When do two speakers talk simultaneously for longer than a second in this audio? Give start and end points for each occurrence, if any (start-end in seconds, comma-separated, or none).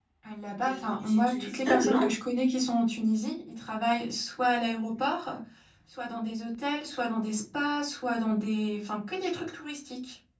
0.7-2.1